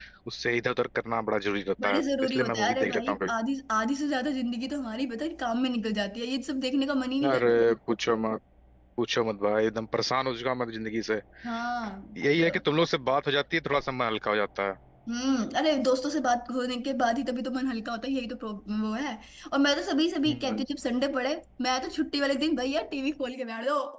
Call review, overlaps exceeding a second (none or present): present